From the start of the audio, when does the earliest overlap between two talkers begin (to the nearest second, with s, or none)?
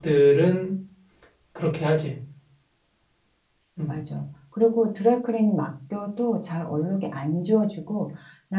none